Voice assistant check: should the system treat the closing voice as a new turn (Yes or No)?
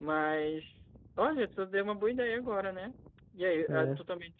No